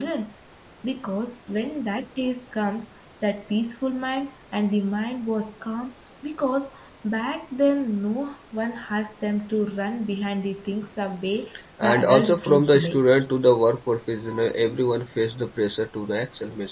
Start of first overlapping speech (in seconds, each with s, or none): 11.8 s